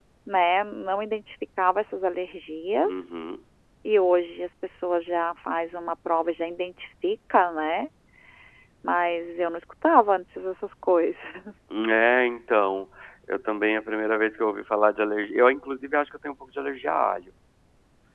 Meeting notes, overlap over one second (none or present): none